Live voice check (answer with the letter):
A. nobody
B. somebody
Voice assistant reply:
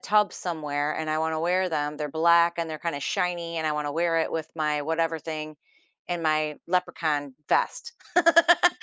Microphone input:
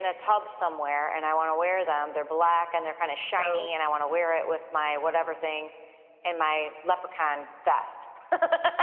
B